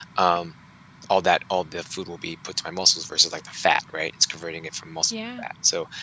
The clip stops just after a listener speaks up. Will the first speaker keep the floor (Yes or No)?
Yes